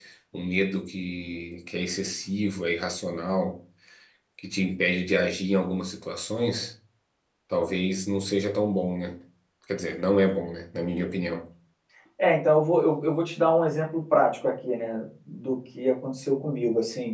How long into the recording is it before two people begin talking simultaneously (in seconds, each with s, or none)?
none